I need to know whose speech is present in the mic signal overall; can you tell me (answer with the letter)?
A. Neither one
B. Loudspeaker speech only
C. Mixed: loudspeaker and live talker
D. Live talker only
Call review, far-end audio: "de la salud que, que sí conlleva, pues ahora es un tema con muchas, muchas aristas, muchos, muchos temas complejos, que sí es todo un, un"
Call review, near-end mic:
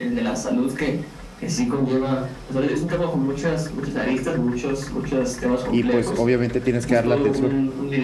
C